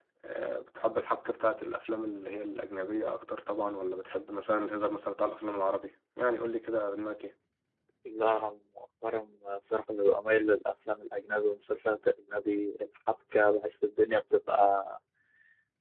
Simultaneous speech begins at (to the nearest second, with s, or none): none